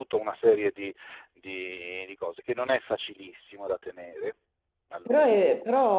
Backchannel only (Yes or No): No